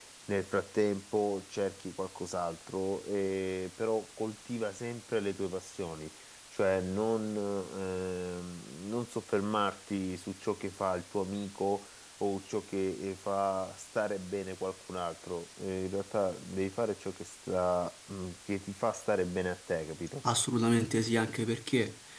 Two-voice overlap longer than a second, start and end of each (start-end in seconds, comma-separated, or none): none